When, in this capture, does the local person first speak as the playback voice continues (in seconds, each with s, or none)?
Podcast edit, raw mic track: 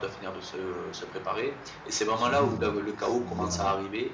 2.0 s